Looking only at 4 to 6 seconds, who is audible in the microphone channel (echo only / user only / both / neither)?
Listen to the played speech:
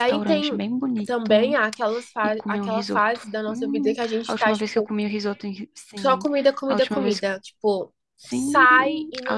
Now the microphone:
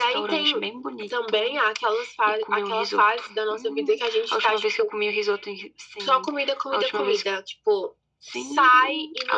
echo only